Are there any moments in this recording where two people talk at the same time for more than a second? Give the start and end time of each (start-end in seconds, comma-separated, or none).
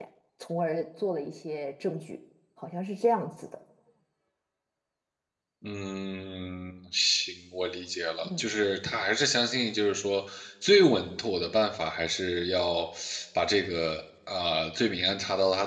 none